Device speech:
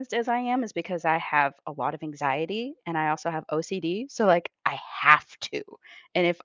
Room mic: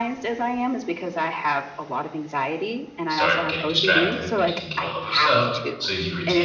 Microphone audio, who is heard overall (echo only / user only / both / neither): both